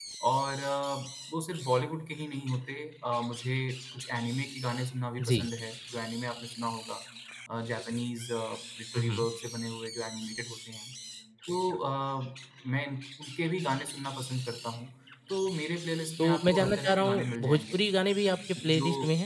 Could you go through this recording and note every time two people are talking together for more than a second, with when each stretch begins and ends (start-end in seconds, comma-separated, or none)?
16.2-17.8